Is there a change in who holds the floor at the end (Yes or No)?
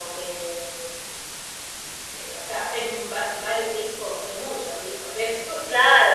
Yes